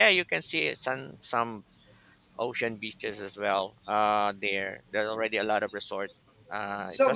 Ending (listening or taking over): taking over